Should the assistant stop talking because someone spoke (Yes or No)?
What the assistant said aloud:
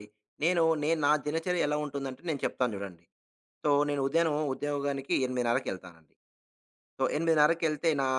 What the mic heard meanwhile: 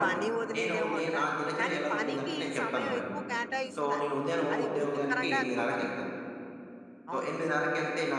Yes